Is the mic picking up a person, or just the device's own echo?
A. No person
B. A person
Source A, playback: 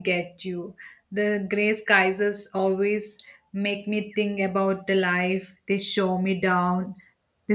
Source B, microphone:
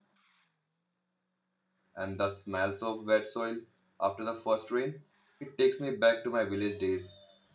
B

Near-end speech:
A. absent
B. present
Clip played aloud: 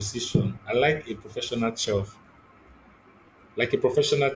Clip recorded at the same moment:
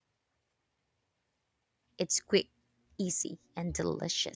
B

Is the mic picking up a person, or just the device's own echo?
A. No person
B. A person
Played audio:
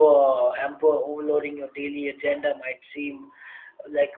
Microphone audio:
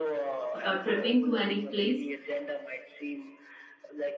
B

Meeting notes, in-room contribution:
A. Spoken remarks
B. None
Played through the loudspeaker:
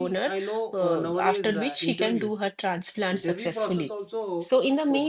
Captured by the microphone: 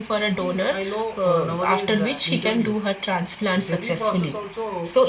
B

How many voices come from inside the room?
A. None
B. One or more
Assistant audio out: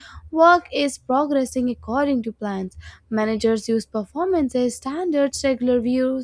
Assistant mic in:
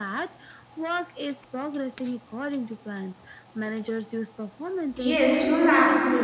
B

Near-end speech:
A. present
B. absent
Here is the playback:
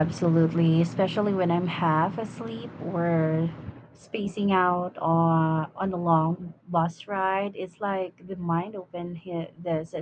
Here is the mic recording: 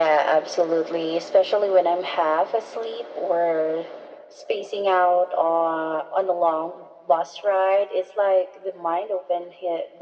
B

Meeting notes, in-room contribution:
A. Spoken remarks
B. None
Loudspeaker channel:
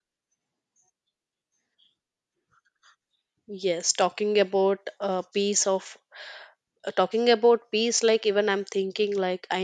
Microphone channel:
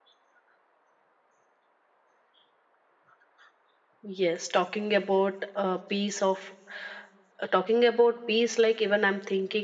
B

